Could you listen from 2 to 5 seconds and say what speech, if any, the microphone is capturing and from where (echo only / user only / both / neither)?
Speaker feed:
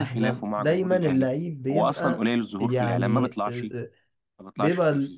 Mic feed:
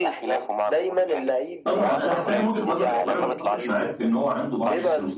both